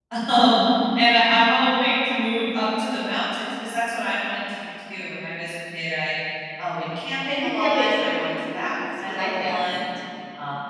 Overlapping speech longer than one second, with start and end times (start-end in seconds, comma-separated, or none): 7.3-9.8